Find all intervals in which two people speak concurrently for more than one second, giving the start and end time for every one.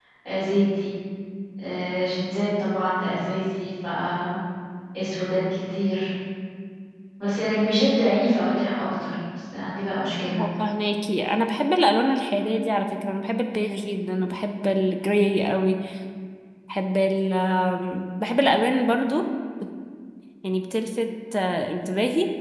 none

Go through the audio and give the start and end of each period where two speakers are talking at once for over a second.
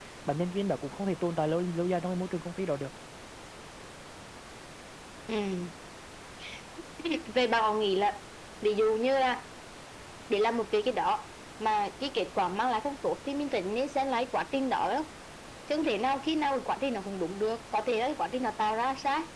none

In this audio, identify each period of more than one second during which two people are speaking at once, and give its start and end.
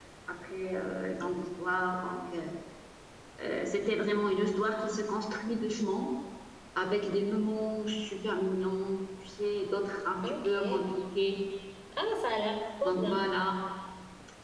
none

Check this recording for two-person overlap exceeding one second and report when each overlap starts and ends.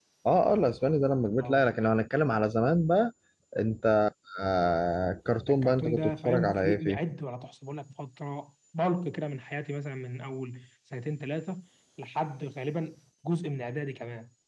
5.5-7.0

